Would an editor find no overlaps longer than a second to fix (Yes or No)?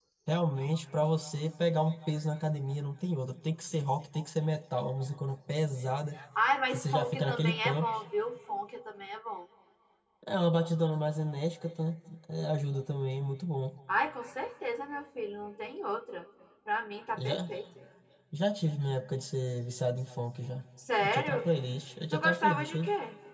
No